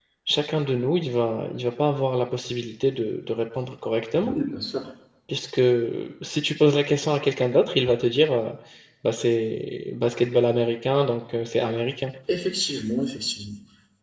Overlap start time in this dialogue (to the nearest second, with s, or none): none